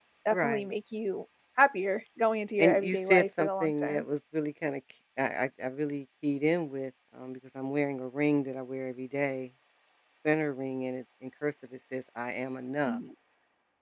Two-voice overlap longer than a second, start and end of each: 2.6-4.0

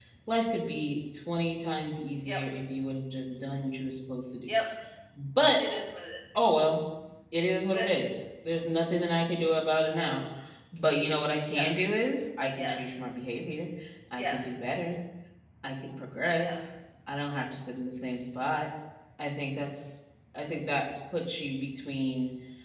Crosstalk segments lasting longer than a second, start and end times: none

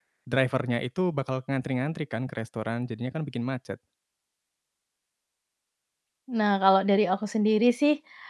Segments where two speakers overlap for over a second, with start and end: none

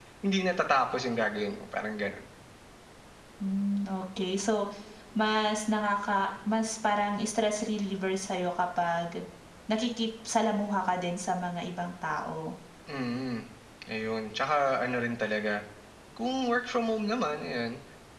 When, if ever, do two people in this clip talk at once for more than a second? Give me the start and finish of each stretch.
none

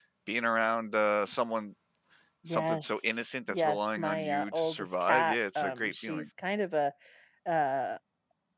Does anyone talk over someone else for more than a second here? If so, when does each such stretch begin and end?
3.5-6.2

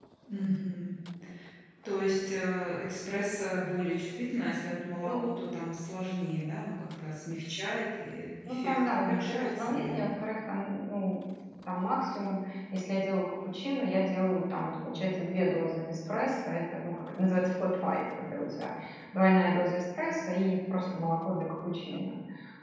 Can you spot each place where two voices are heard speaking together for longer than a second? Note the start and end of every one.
8.5-10.1

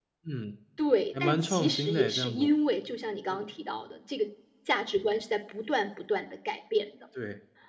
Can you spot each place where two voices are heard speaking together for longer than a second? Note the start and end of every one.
1.2-2.5

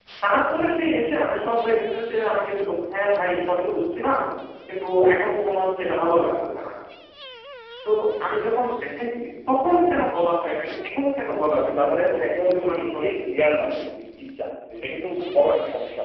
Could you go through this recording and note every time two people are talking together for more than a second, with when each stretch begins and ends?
11.5-13.1

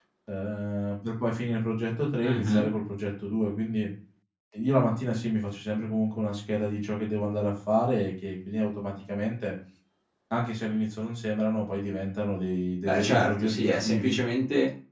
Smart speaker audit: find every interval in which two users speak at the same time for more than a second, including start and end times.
12.8-14.2

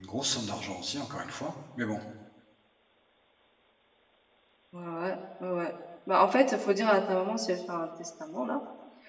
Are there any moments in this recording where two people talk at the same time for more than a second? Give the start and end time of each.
none

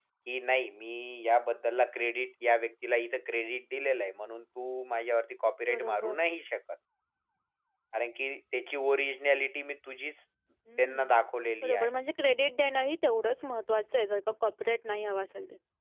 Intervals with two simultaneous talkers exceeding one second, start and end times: none

